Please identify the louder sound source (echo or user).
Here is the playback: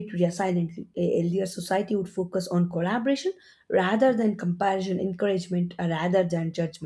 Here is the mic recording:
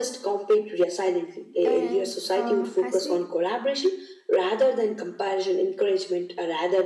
echo